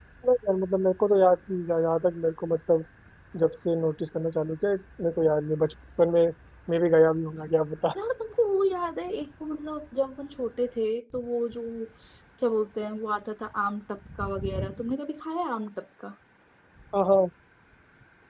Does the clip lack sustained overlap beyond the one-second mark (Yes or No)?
Yes